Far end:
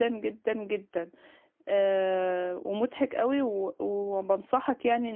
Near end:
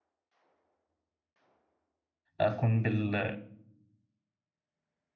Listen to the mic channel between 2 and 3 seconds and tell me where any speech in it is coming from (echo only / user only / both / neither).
user only